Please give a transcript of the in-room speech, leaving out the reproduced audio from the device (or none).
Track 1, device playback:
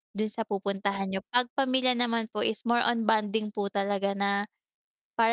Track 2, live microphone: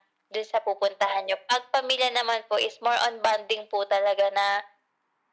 none